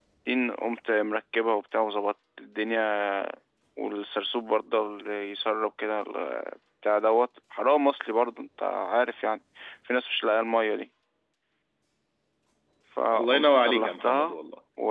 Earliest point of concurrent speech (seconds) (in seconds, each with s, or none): 13.1 s